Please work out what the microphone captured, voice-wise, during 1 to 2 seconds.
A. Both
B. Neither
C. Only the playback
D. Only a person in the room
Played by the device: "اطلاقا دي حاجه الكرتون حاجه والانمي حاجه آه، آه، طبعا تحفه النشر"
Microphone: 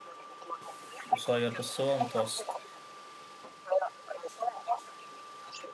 A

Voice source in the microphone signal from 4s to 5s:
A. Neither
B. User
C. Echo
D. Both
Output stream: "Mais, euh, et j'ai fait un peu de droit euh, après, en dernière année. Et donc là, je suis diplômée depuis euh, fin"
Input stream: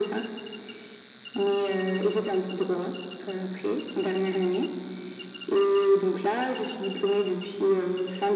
C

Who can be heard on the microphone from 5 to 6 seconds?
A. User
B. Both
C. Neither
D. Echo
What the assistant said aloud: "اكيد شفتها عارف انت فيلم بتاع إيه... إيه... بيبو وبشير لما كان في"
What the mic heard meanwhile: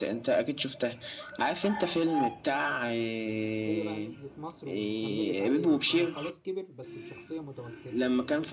B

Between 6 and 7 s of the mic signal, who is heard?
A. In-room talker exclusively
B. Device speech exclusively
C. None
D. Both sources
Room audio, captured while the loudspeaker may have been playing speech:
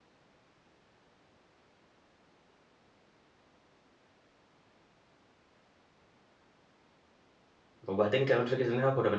C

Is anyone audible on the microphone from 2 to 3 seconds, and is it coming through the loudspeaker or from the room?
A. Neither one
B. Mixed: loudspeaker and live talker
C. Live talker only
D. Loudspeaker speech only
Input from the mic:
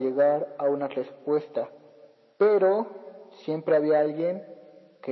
D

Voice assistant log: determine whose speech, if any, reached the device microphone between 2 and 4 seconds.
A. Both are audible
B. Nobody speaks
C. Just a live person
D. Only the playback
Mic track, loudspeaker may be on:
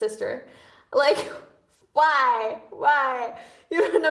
C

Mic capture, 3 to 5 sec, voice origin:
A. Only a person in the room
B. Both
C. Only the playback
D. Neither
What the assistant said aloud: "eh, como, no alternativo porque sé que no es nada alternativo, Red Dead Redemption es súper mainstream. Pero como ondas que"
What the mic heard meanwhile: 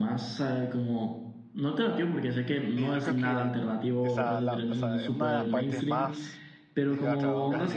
B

